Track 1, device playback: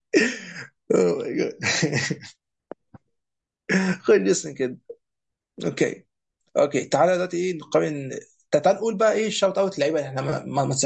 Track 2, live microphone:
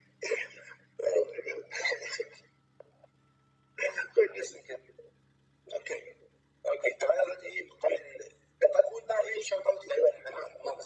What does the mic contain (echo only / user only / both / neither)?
echo only